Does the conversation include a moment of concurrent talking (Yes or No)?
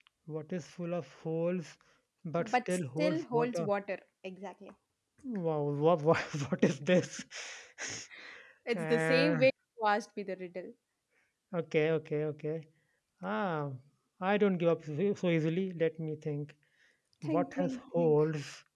Yes